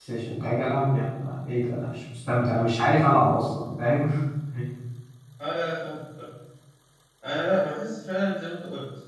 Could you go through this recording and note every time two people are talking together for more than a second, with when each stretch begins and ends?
none

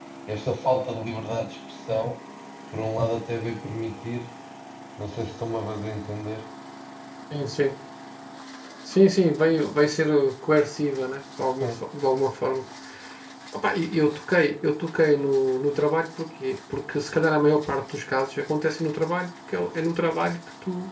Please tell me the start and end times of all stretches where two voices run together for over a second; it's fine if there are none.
none

